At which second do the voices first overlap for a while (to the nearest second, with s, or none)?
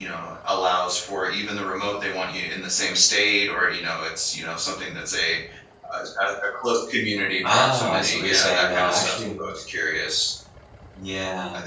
7 s